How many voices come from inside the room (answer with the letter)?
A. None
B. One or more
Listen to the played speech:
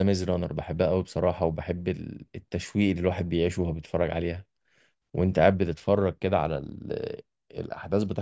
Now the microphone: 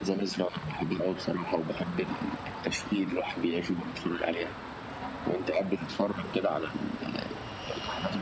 A